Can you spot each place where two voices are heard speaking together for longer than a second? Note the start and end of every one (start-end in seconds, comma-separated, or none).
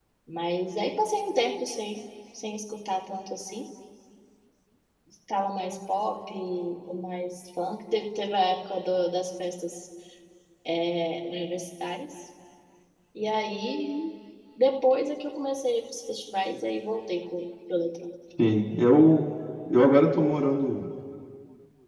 none